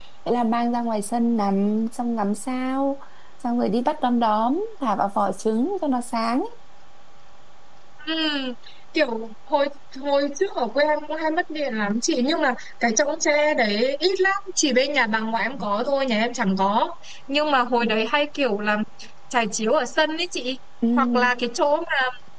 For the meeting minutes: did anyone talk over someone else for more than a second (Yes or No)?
No